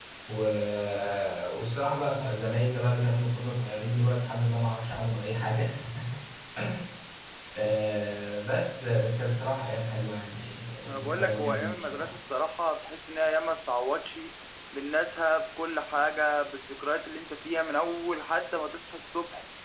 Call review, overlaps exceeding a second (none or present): present